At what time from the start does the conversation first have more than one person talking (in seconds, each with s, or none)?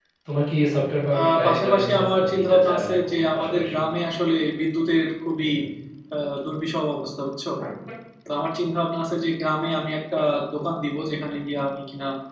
1.2 s